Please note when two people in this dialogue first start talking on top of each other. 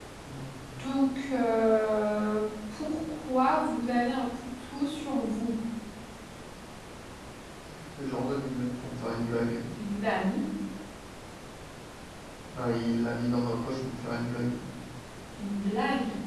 none

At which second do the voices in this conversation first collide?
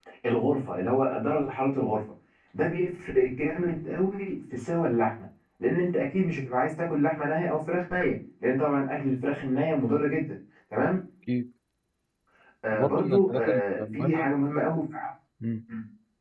13 s

